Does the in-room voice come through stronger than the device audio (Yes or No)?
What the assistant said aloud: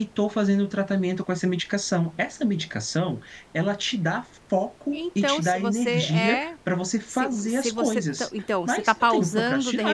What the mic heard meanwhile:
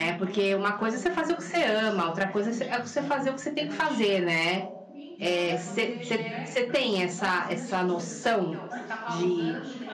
Yes